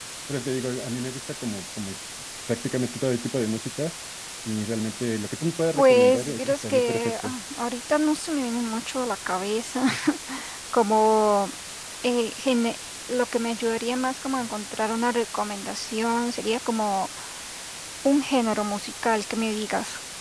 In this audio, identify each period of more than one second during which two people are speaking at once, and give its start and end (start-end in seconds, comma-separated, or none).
5.8-7.3